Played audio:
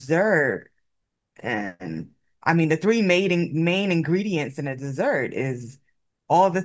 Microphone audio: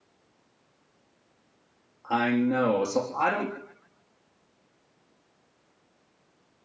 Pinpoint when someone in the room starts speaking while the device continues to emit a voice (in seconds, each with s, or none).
2.1 s